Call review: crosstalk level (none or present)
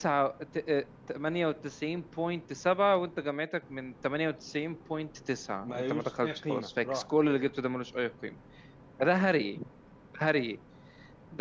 present